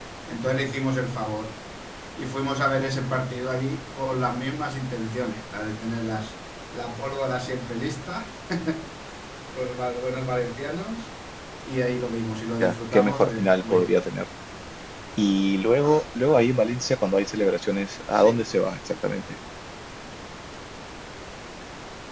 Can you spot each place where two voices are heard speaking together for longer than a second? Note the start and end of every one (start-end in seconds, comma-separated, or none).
12.6-14.0